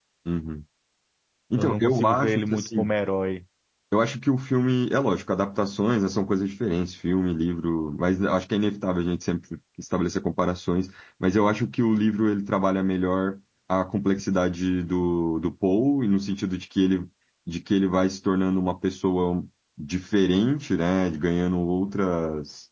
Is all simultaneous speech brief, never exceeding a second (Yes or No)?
No